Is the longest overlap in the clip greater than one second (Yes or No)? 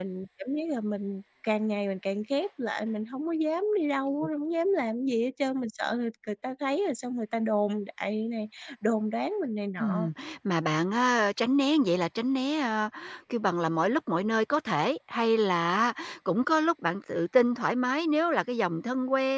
No